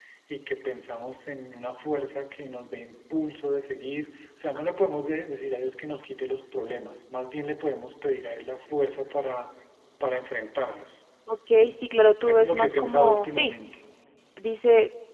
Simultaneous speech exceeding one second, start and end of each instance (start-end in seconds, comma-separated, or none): 12.2-13.5